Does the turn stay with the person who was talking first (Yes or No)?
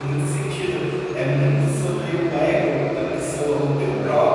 Yes